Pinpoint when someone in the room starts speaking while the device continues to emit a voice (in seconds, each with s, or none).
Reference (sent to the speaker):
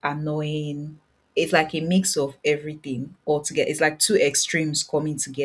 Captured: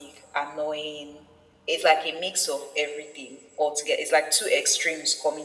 none